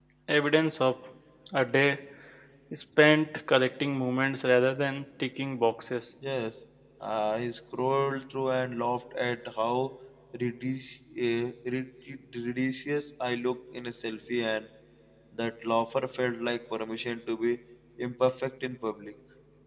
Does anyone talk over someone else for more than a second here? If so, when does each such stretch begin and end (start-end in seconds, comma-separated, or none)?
none